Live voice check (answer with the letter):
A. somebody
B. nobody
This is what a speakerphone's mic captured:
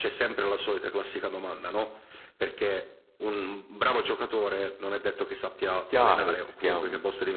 A